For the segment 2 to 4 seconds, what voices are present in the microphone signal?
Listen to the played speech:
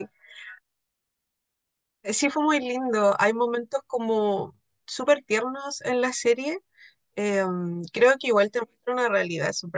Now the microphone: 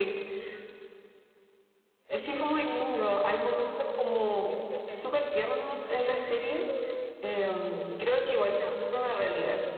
both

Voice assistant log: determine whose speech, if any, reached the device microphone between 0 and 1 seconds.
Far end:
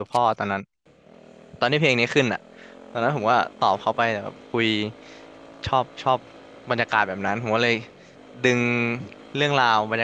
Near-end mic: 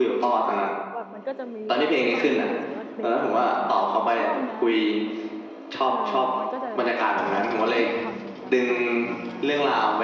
both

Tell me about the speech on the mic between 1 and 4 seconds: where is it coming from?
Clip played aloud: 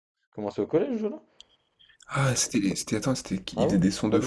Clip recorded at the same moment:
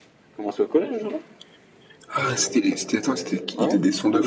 both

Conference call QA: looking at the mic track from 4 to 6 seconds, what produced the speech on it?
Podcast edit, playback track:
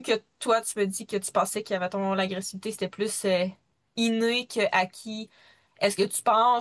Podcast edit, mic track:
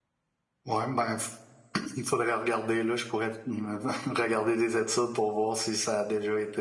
user only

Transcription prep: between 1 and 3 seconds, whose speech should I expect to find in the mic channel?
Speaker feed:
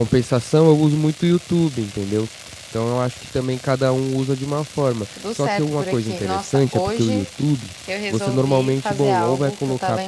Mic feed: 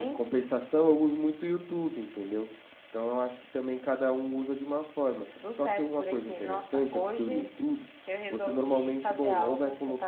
echo only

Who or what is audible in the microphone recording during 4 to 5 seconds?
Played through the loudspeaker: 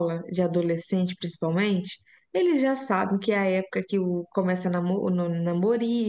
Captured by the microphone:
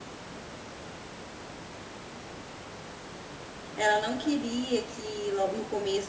user only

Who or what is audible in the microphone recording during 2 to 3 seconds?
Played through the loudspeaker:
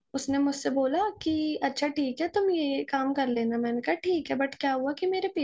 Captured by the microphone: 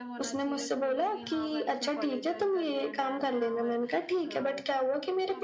both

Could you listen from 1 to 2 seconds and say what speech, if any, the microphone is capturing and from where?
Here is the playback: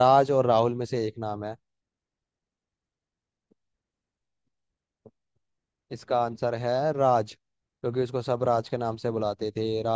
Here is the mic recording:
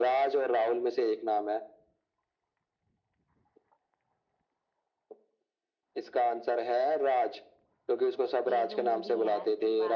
echo only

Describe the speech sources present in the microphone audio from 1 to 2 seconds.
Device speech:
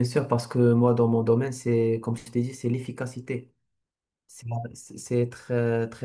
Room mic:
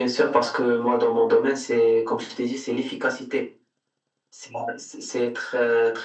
echo only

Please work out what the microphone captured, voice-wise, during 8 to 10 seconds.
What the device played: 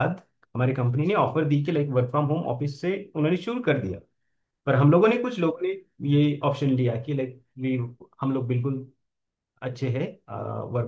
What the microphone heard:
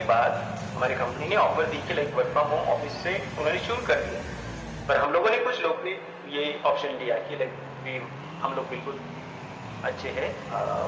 echo only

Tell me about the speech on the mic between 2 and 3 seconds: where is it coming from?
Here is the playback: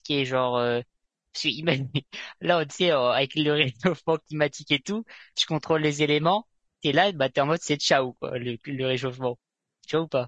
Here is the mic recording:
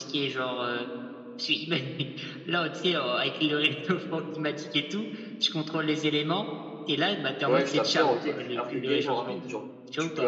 echo only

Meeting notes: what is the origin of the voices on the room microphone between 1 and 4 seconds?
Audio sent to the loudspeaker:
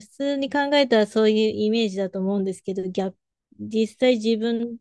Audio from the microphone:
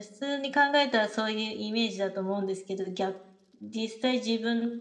echo only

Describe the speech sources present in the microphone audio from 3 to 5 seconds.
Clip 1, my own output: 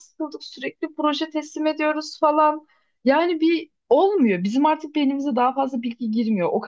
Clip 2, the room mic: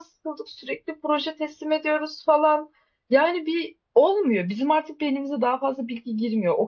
echo only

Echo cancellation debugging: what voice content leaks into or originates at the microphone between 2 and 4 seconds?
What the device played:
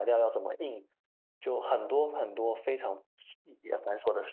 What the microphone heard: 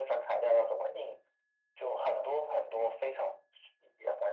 echo only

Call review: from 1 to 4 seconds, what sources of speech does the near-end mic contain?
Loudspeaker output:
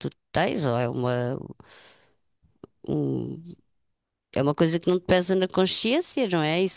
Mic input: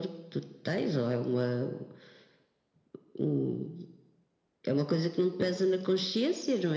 echo only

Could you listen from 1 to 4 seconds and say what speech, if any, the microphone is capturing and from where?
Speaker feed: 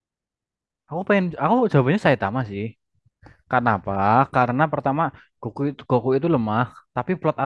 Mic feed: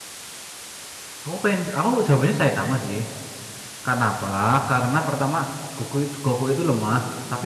echo only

